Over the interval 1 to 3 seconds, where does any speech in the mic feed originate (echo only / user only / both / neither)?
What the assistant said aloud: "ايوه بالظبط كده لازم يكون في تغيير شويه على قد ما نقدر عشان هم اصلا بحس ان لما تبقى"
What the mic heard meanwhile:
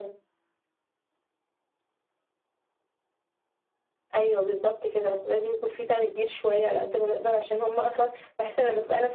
neither